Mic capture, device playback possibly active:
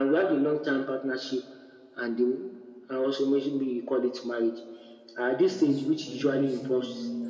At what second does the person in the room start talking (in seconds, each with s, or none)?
5.4 s